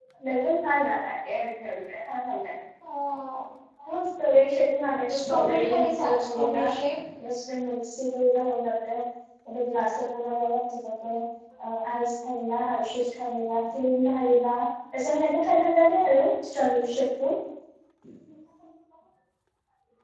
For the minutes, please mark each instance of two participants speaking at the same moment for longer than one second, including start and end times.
5.2-6.6

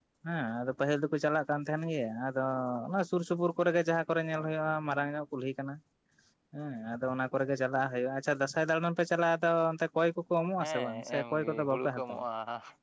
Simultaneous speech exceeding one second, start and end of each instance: 10.6-12.2

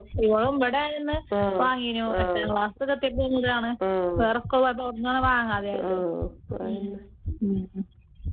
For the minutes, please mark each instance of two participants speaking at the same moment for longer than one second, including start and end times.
none

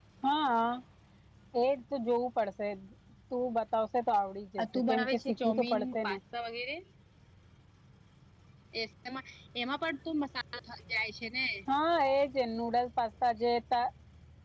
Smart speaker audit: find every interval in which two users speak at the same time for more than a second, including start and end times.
4.7-6.2

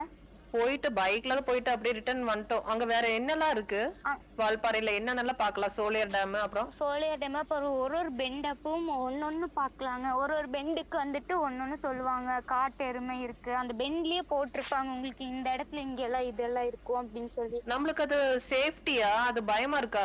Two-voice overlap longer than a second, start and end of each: none

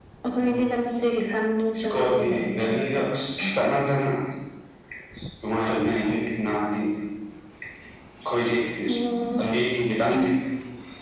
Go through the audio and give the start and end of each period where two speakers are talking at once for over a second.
1.8-3.0

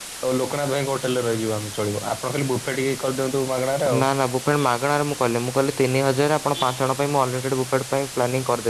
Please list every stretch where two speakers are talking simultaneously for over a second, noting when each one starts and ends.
none

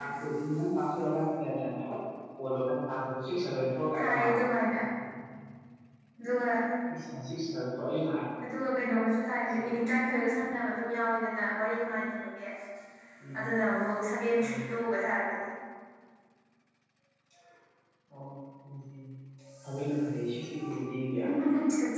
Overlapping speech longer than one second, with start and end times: none

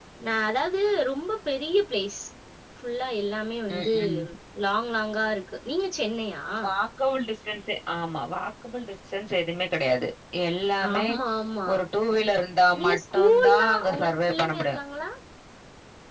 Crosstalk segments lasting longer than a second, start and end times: 12.8-14.8

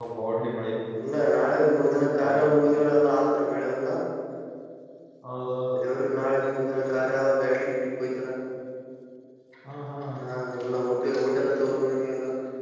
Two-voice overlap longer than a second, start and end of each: none

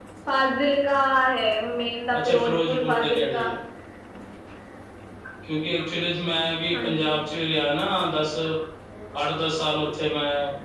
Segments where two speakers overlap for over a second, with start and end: 2.1-3.5

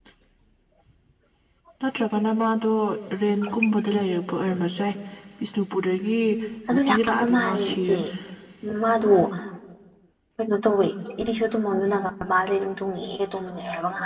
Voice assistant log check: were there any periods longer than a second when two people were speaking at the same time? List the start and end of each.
6.7-8.0

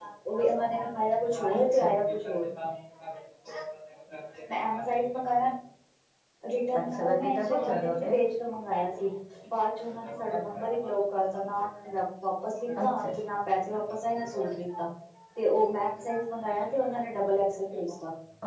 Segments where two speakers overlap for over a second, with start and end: 6.8-8.1

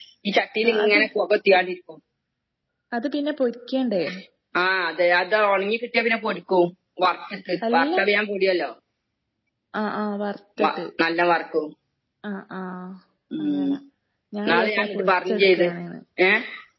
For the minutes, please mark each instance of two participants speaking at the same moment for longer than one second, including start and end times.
14.5-15.7

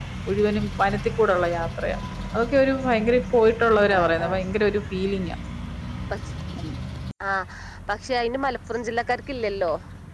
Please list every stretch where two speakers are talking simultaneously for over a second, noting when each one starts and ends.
none

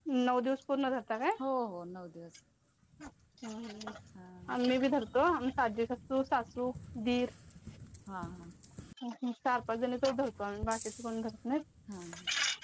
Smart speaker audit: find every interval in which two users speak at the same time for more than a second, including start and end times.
none

